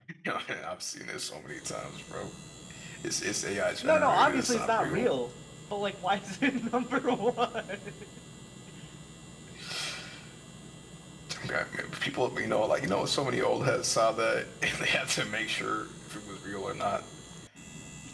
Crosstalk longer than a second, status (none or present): present